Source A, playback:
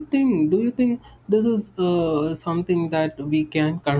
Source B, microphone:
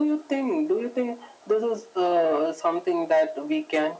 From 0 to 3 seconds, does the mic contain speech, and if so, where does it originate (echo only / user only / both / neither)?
echo only